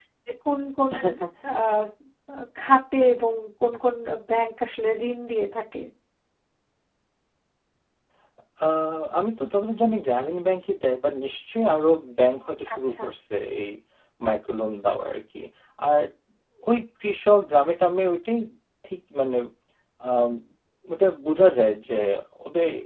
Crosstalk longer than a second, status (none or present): none